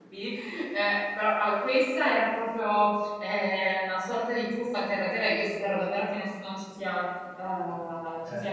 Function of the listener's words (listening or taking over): listening